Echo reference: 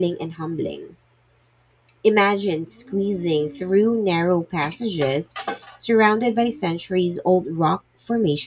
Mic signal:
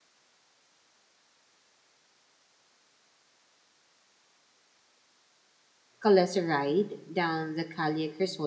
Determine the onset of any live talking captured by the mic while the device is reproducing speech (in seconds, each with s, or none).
6.0 s